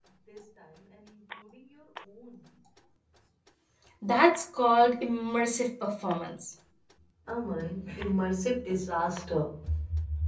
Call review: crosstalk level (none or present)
none